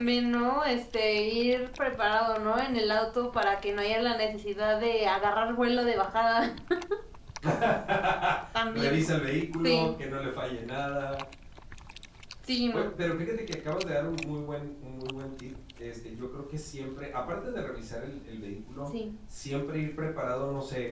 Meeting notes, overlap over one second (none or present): none